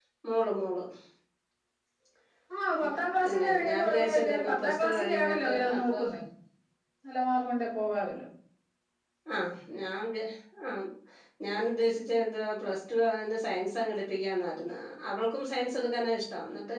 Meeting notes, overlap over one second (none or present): present